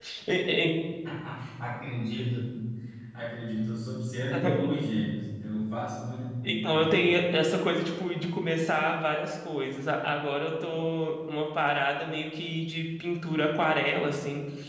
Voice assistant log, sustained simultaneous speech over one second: none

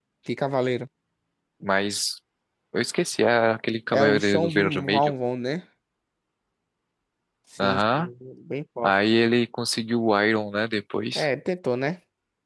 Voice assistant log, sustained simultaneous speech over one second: present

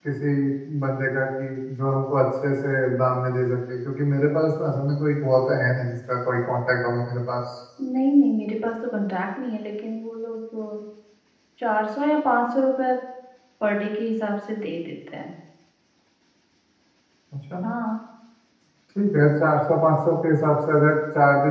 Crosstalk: none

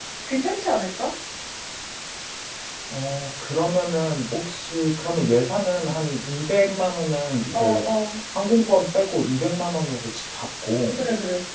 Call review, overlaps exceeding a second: none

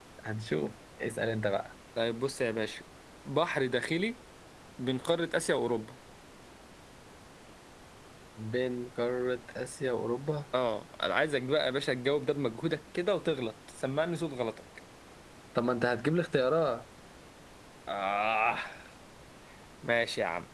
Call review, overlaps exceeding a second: none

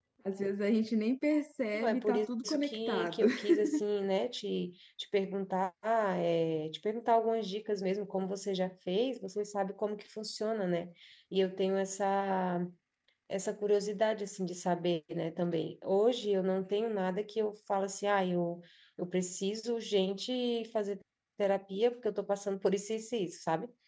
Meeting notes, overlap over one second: present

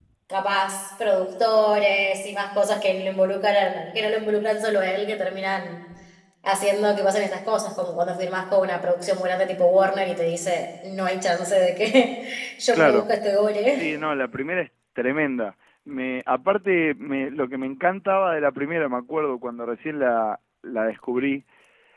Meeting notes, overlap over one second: none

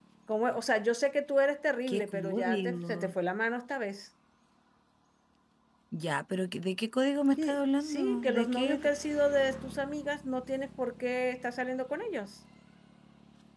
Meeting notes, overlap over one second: present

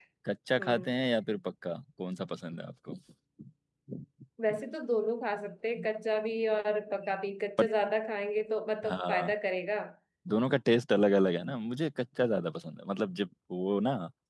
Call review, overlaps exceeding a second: none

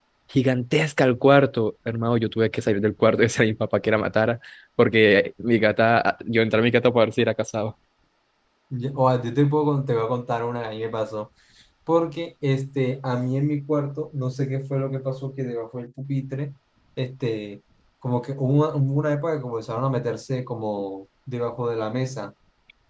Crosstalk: none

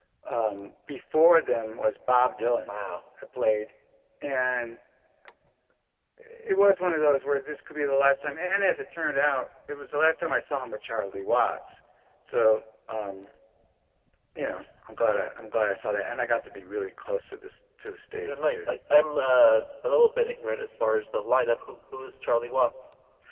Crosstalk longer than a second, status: none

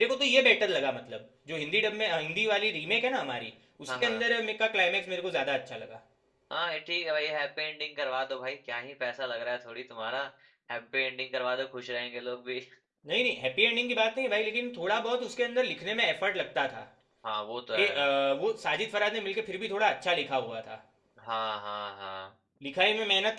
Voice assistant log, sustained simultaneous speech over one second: none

